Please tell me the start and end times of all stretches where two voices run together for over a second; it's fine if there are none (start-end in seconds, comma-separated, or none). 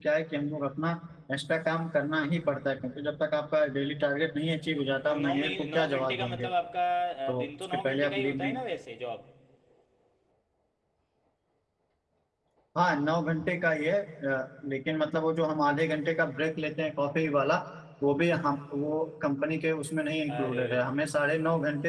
4.6-6.5, 7.3-8.5